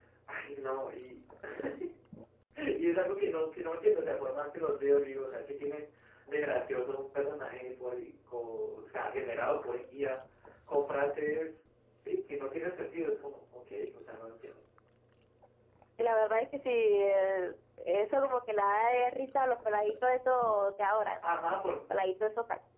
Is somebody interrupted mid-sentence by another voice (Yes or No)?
No